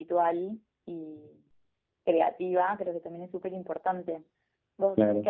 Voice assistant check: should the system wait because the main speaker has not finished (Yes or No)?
No